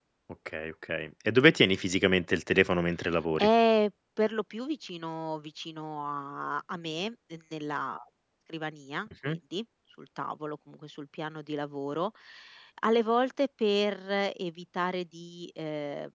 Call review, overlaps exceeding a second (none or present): none